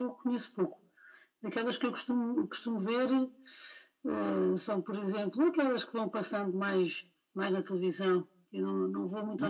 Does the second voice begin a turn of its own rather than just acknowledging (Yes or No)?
No